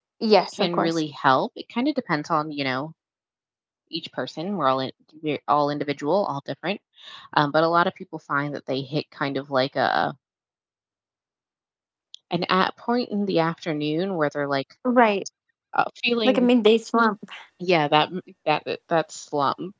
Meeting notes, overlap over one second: none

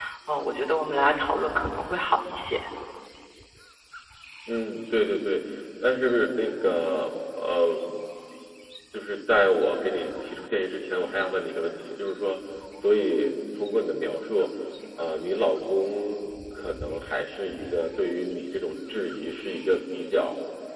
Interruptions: none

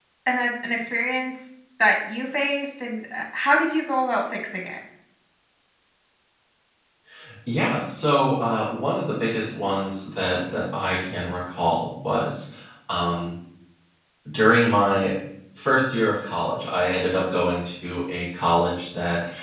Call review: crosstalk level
none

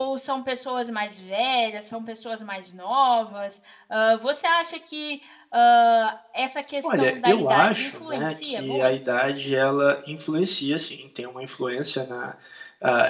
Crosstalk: present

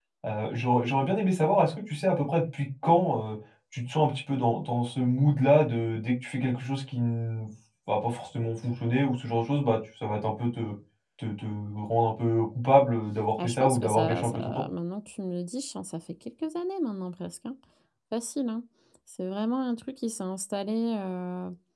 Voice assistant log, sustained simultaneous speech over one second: present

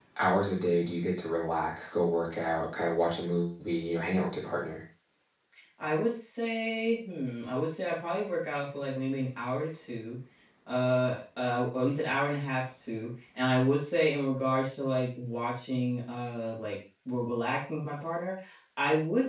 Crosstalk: none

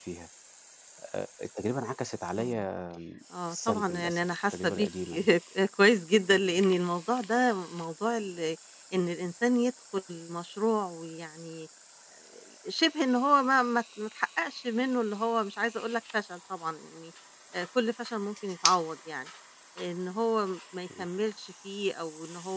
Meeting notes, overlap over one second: present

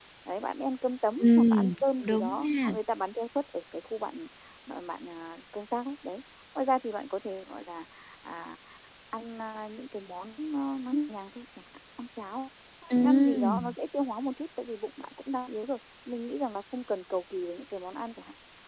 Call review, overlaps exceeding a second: present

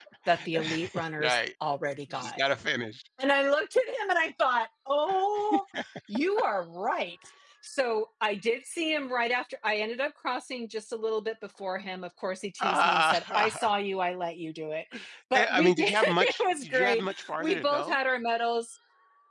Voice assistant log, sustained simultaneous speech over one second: present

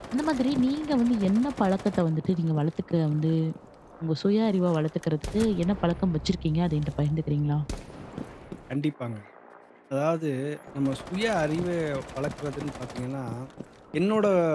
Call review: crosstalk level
none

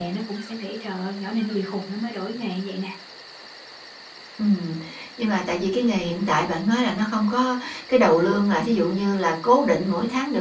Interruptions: none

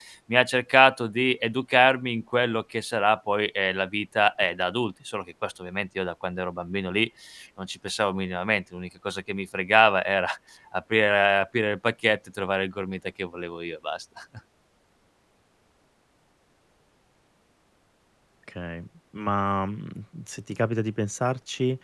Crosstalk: none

